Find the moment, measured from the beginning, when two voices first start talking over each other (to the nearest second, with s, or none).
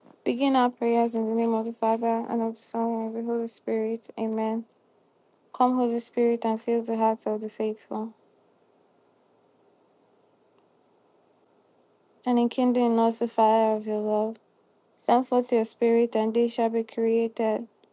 none